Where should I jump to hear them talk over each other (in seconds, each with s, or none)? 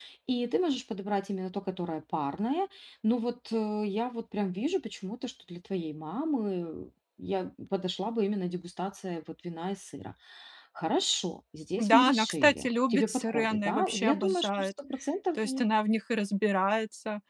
11.8 s